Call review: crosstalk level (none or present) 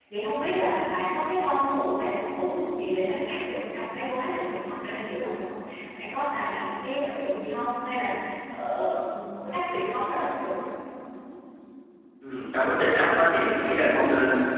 none